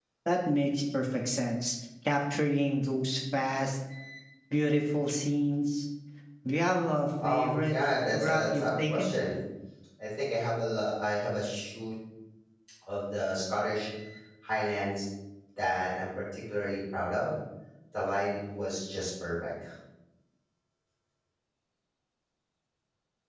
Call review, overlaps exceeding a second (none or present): present